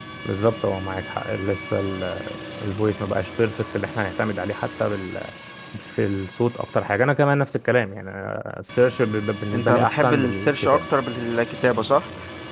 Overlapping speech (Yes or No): Yes